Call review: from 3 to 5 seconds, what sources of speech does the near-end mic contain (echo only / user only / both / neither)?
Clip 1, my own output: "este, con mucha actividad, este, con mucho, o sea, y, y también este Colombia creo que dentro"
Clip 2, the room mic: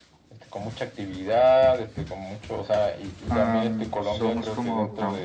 both